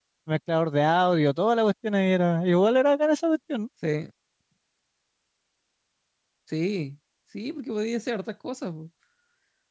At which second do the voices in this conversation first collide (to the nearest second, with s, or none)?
none